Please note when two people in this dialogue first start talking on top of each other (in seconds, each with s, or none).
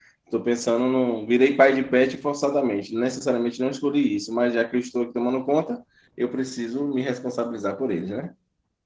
none